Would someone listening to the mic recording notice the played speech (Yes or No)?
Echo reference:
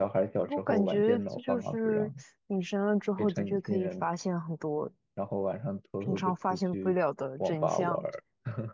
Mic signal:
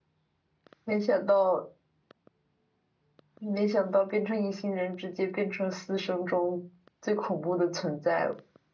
No